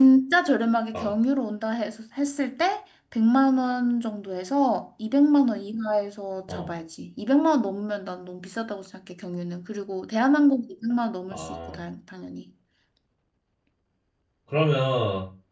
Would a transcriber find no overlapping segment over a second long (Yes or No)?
Yes